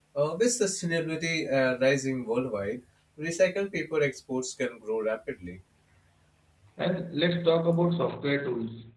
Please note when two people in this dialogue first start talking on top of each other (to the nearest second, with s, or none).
none